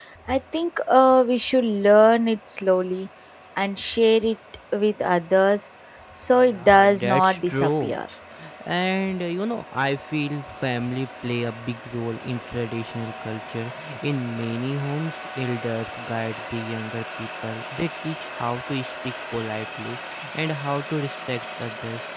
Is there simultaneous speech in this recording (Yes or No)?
Yes